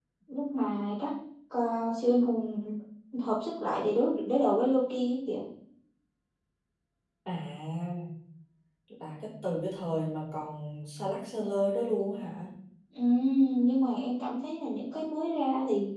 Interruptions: none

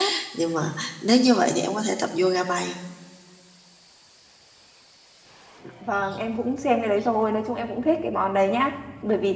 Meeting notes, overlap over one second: none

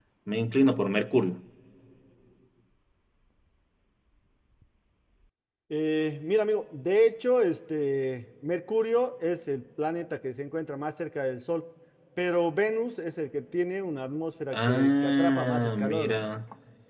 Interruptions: present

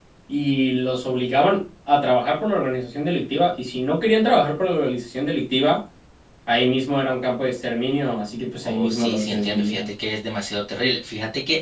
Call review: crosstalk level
present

